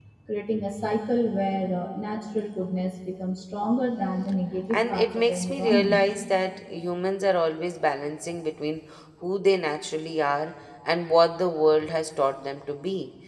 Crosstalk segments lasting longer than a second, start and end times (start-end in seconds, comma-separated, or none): 4.7-6.0